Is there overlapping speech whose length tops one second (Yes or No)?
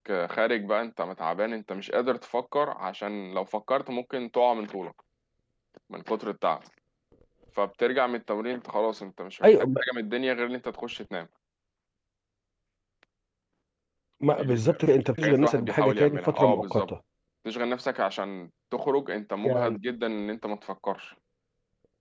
Yes